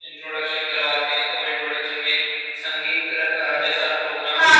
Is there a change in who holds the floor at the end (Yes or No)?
Yes